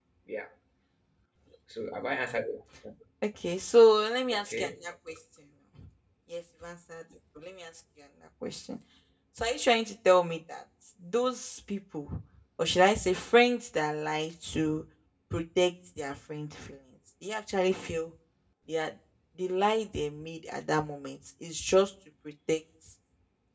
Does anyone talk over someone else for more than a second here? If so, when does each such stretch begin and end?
none

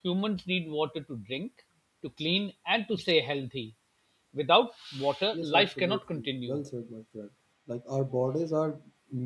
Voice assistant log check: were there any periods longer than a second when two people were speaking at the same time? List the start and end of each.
5.4-6.6

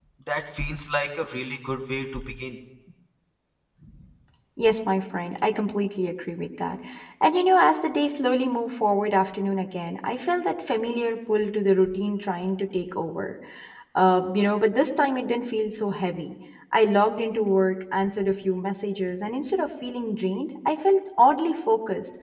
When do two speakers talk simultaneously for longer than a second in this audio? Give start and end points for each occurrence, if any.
none

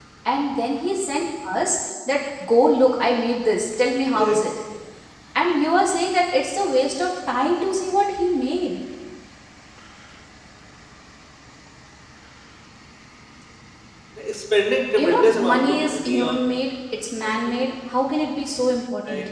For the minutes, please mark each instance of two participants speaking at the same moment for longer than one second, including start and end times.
15.0-16.4

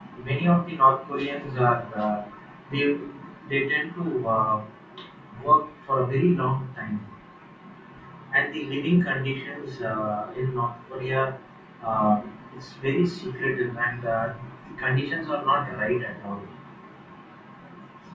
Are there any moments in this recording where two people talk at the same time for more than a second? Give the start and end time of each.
none

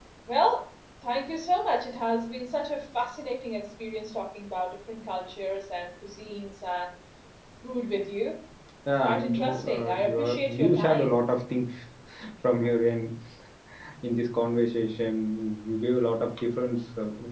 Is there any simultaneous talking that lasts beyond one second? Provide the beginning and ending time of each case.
9.0-11.2

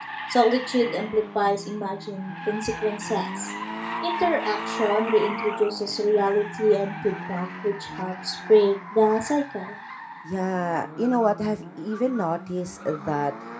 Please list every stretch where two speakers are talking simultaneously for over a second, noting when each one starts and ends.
none

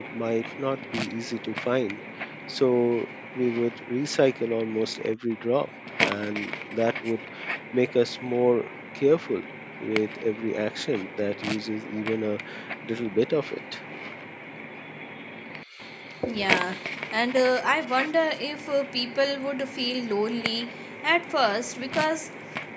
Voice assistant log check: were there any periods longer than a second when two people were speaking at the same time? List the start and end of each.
none

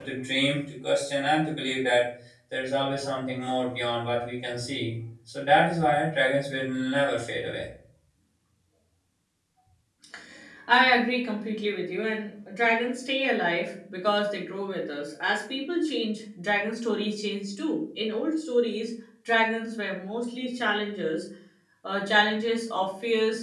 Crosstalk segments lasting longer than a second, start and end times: none

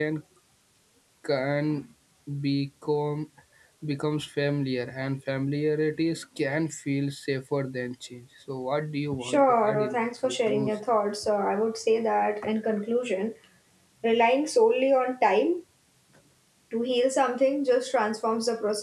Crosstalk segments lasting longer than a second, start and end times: 9.2-10.7

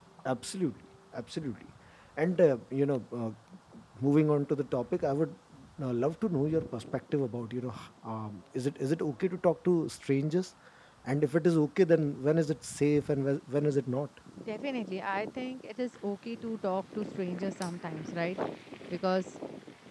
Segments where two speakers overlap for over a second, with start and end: none

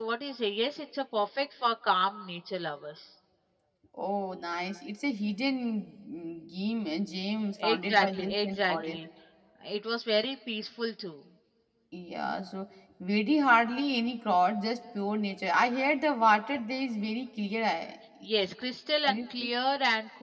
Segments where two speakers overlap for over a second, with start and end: 7.6-9.0

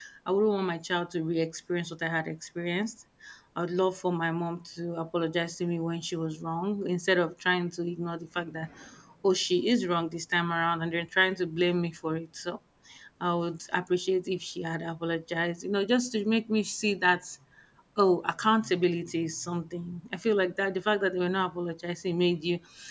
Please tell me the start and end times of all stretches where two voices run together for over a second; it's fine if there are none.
none

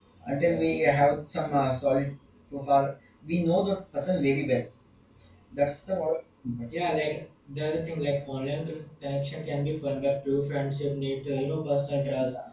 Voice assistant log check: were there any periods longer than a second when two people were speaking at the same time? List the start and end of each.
none

